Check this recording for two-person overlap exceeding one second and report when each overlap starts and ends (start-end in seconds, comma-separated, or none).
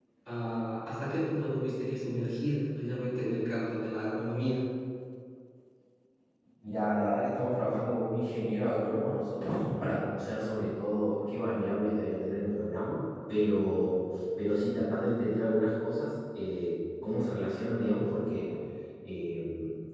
none